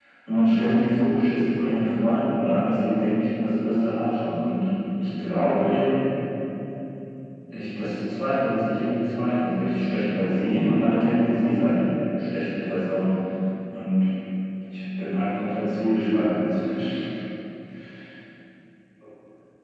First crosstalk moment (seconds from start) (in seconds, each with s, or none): none